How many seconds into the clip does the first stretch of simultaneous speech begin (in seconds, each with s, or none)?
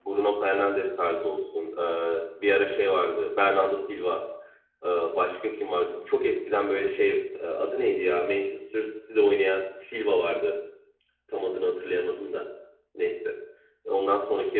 none